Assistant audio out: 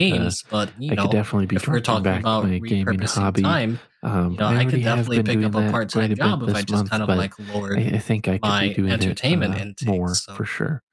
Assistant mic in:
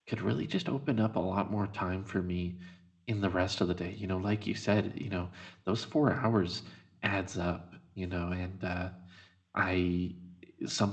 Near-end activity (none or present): present